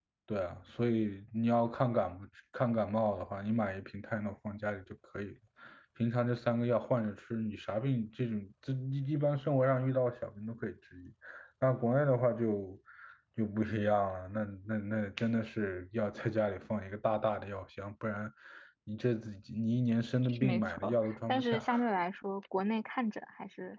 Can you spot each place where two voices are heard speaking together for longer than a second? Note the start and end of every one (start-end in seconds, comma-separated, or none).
20.2-21.7